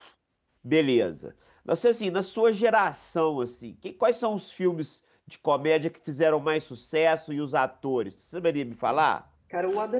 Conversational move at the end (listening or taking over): taking over